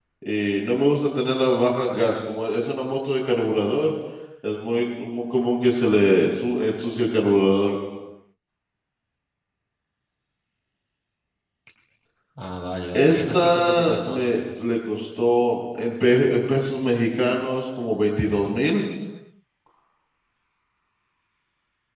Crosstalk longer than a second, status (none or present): present